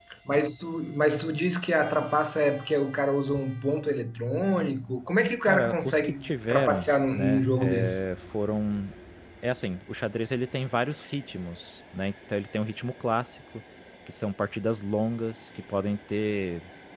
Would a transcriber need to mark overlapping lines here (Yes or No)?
Yes